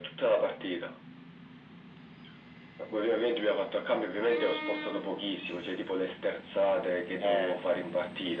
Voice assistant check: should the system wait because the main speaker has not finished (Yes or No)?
Yes